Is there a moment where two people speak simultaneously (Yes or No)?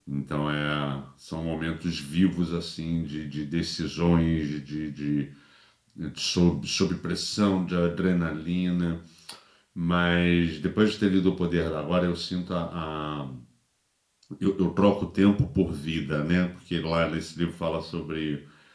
No